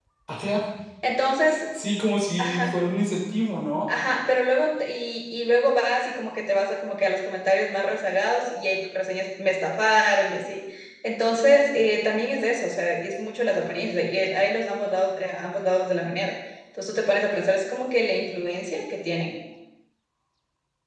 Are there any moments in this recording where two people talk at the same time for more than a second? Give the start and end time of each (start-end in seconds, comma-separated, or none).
none